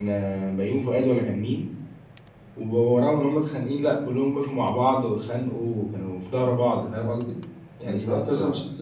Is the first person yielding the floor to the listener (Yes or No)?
No